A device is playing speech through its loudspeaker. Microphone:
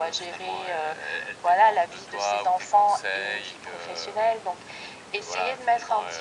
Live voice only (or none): none